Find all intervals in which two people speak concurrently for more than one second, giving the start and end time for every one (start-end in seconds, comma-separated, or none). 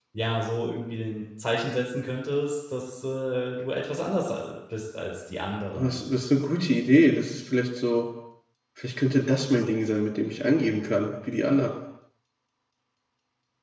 none